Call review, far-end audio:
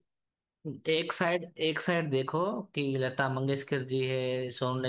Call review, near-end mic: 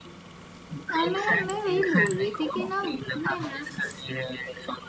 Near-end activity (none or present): present